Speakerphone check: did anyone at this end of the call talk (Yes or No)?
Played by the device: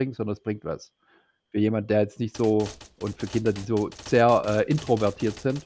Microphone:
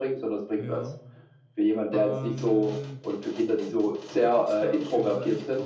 Yes